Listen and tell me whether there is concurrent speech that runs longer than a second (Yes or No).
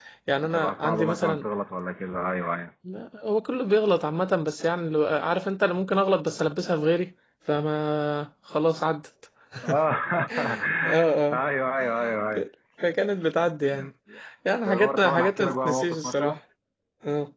Yes